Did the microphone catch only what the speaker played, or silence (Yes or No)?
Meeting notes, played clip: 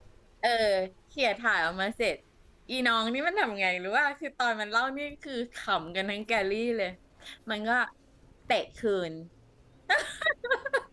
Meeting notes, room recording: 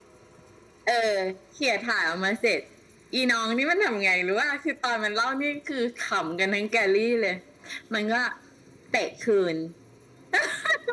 Yes